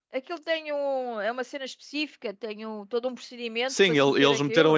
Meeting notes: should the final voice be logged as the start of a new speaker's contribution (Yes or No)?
Yes